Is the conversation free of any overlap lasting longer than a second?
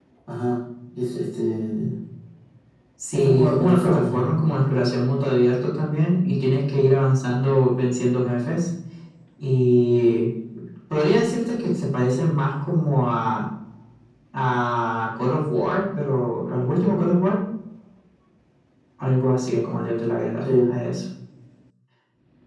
No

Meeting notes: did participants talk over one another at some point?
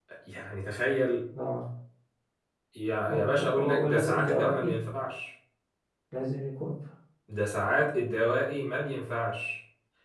Yes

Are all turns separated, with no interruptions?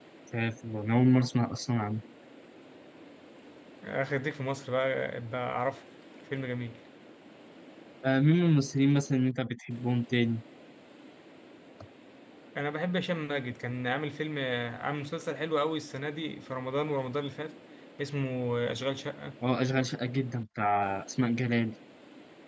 Yes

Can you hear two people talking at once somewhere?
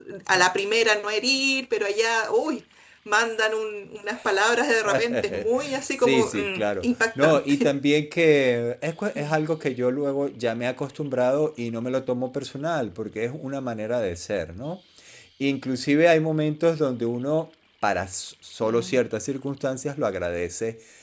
Yes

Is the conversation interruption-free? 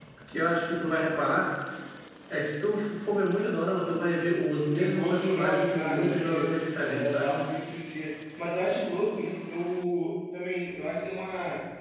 No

